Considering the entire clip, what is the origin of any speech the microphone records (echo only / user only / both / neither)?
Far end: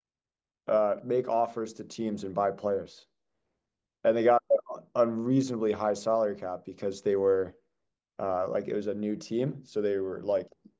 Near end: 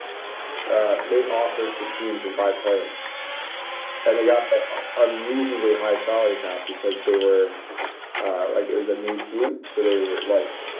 echo only